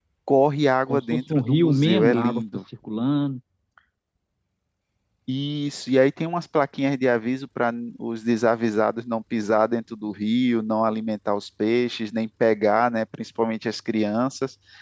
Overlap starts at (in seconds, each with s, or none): 0.9 s